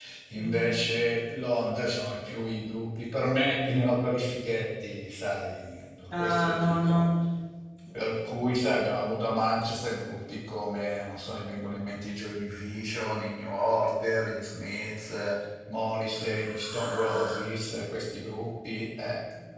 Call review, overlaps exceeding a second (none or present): present